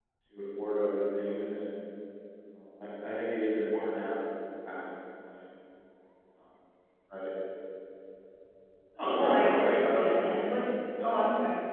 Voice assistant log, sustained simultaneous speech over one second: present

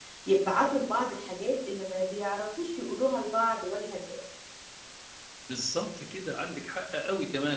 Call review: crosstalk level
none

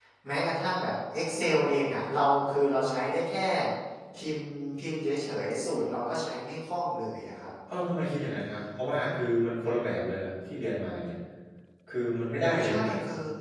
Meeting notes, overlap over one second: none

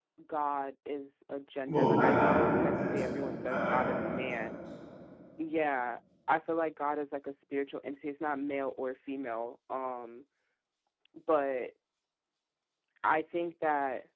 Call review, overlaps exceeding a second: present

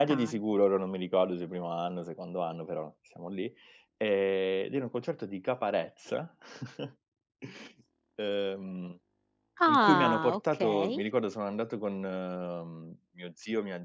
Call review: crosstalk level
present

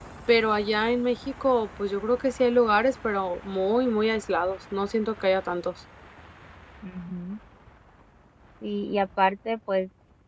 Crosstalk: none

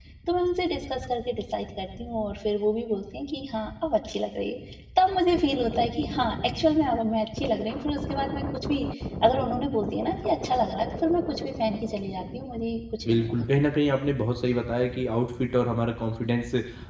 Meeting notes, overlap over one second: none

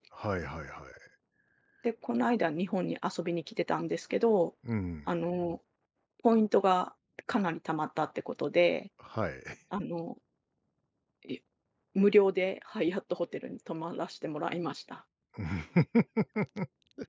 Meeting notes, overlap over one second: none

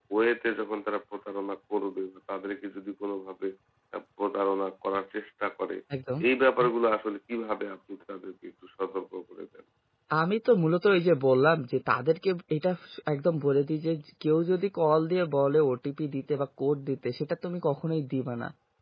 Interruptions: none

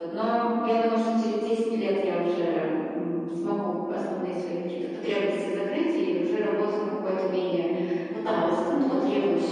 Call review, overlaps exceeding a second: present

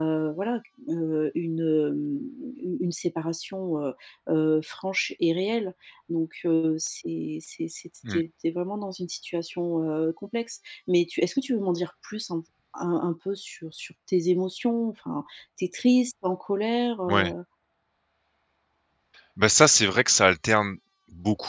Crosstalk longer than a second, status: none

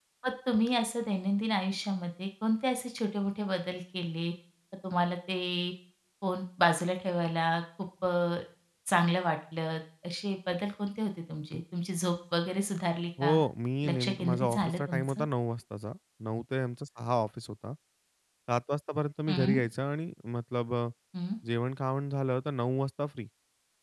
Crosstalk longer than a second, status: present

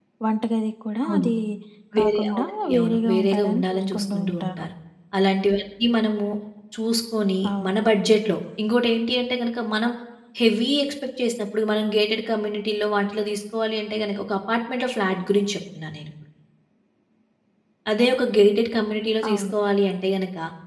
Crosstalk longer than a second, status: present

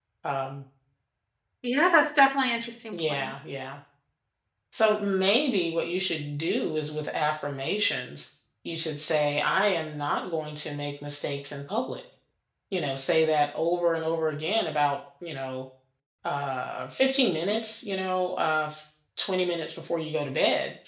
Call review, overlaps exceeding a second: none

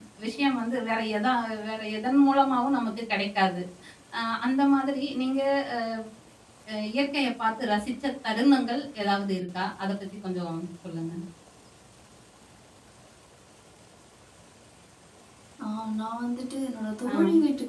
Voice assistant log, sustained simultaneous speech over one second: none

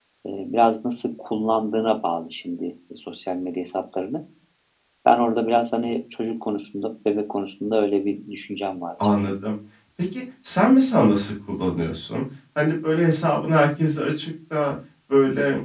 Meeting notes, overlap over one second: none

